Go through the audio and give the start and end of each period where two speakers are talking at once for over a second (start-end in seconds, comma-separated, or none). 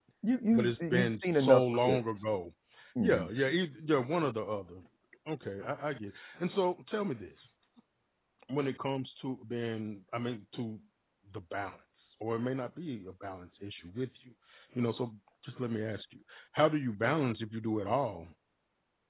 0.5-2.2